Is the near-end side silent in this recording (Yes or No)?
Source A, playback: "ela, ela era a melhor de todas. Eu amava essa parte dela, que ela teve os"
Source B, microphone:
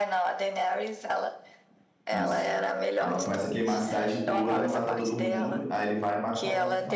No